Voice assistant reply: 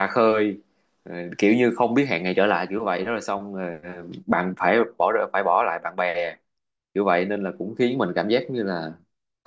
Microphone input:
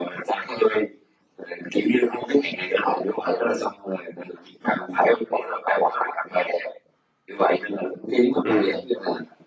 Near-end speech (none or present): present